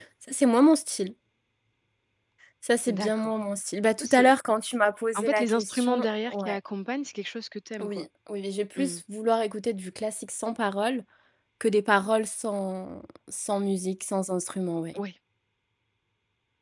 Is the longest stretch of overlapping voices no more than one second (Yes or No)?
No